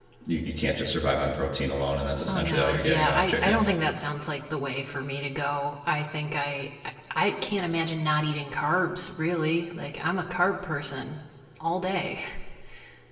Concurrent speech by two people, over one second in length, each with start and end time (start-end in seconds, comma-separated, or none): 2.3-3.6